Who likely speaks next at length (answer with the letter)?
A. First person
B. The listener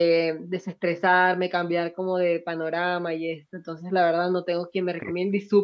A